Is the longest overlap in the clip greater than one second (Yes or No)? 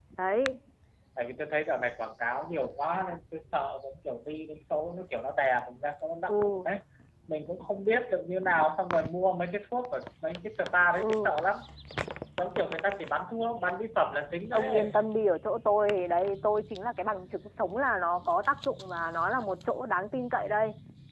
No